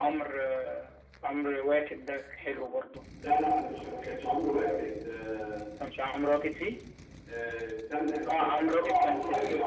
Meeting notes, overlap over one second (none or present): present